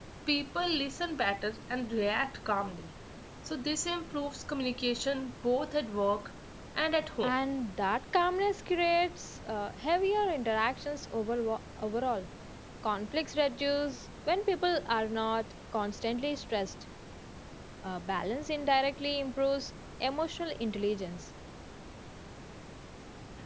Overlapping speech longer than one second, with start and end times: none

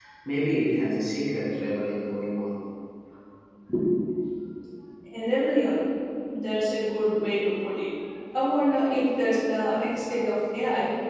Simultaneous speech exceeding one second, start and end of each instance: none

